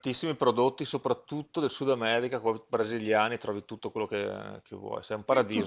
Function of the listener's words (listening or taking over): taking over